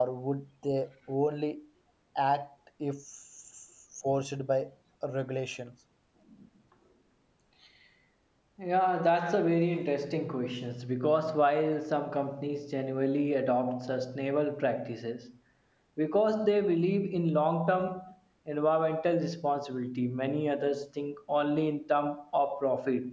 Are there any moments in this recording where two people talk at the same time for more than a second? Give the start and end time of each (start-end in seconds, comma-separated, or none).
none